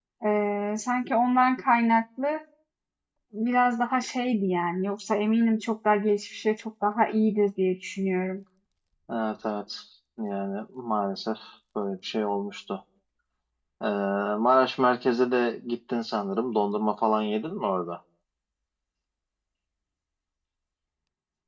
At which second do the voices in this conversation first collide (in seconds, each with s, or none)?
none